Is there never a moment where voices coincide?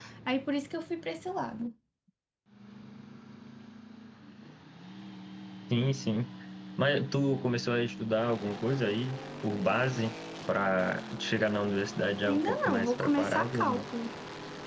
No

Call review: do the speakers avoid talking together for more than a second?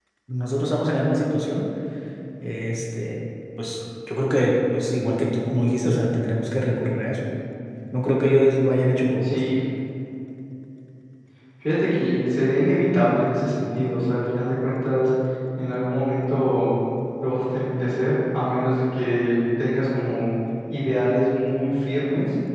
Yes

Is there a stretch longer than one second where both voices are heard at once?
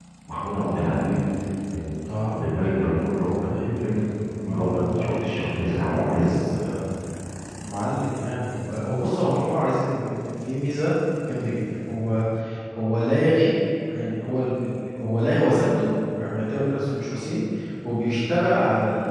Yes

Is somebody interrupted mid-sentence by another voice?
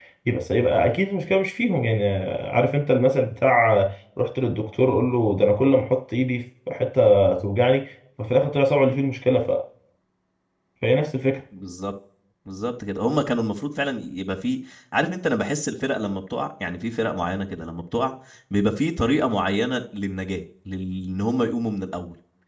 No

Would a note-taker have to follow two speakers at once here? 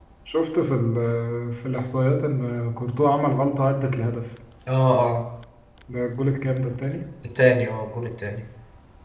No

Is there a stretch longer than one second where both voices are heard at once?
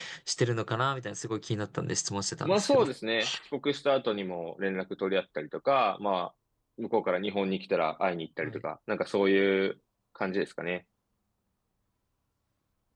No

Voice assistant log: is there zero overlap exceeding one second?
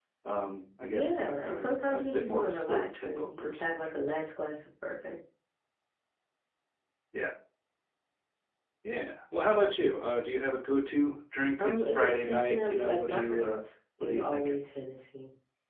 No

